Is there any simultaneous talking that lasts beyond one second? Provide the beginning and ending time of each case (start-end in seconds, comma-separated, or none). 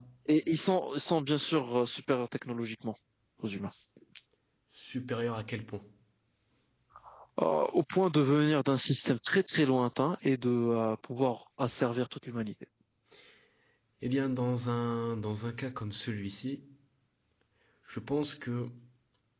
none